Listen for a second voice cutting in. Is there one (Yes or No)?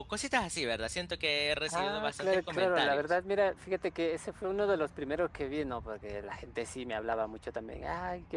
Yes